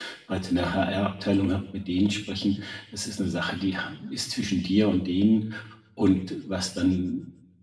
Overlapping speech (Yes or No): No